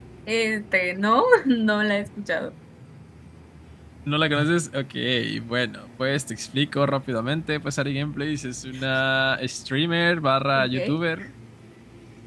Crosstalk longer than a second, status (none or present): none